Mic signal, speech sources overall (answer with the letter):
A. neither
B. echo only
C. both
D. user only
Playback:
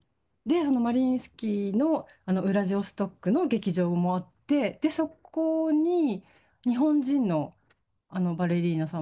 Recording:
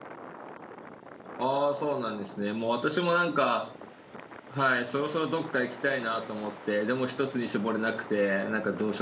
D